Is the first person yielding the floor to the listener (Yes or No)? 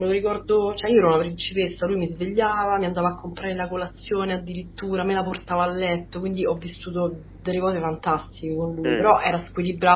No